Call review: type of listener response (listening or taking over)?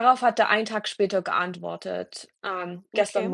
listening